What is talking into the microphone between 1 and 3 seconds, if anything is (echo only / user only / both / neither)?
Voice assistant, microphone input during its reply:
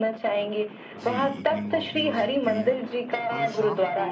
both